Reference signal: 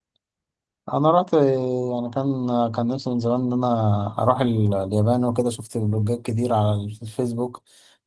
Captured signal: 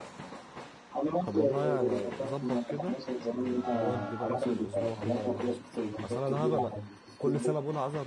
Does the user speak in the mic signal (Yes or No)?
Yes